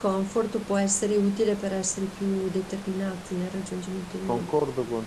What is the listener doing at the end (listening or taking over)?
taking over